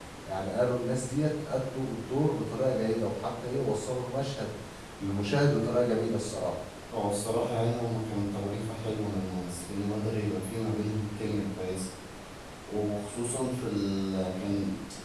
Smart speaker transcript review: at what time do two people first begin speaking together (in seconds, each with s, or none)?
none